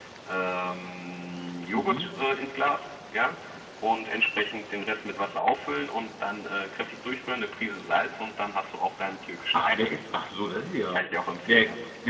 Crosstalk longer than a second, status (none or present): none